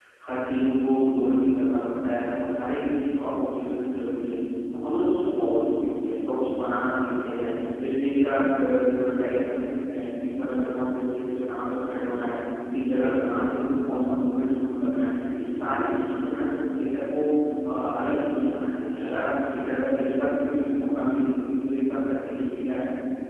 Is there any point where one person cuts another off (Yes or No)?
No